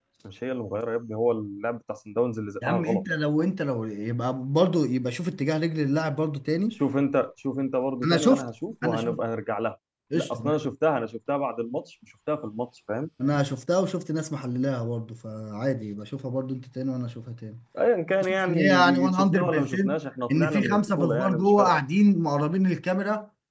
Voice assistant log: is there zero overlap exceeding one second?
No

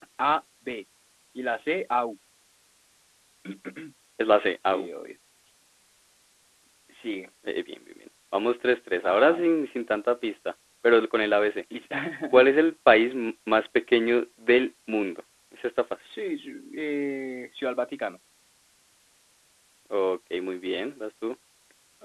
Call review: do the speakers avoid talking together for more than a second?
Yes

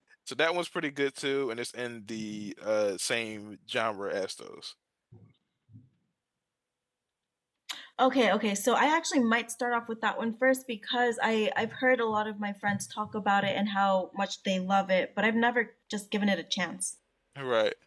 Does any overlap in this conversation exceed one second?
No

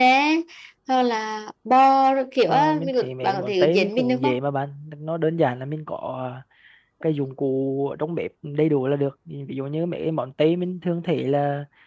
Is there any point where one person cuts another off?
Yes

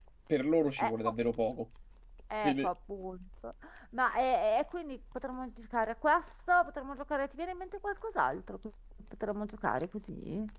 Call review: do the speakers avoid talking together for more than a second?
Yes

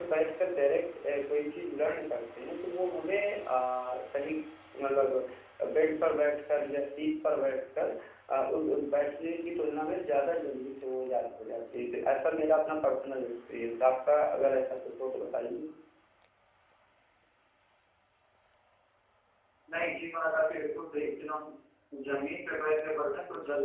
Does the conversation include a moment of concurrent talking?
No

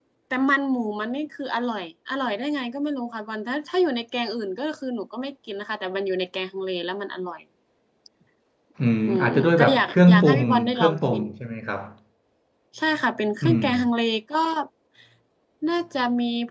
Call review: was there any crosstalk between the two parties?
Yes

